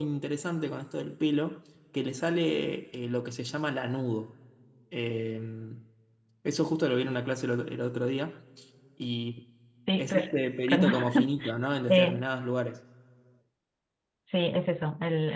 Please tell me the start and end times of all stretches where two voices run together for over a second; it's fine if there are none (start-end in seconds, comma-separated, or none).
10.0-11.3